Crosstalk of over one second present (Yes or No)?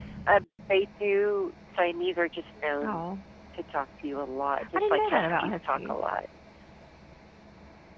Yes